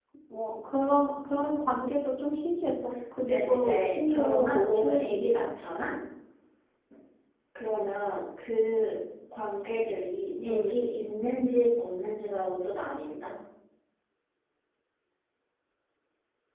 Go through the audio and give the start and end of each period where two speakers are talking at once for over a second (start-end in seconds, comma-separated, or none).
3.1-5.5